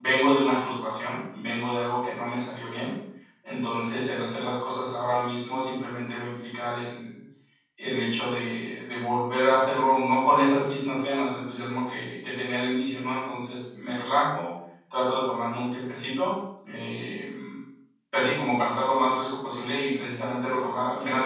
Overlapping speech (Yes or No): No